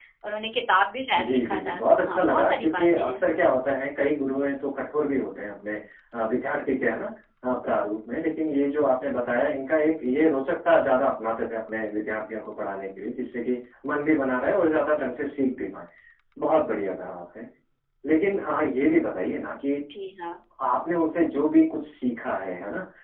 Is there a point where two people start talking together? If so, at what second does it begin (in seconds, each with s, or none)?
1.1 s